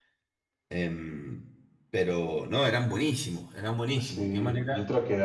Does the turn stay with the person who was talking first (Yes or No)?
No